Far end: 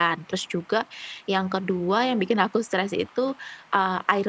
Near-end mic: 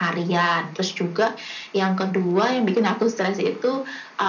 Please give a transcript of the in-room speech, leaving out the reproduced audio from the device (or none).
none